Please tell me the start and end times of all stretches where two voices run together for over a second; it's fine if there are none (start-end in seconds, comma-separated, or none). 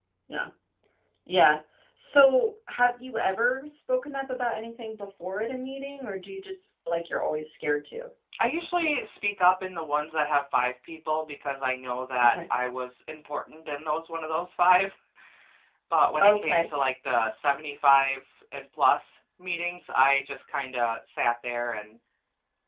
none